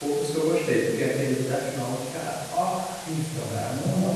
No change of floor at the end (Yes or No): No